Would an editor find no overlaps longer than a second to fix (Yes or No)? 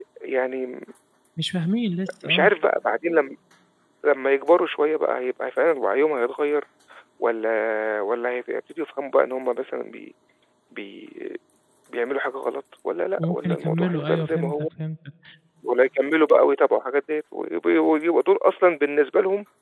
No